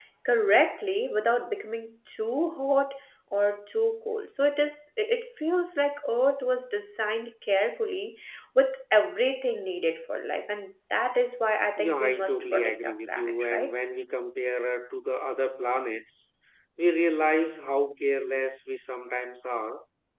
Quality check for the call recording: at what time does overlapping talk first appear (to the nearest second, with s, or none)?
12 s